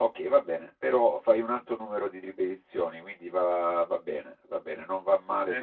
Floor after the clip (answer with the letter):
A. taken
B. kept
B